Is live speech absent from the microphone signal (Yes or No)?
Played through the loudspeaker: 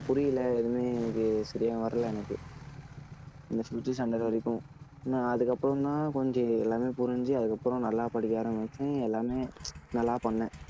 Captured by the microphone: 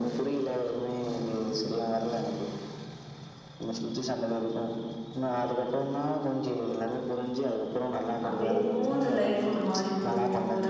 No